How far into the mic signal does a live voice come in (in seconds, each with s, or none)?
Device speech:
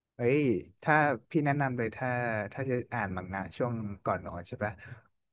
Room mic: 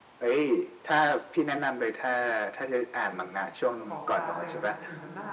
3.8 s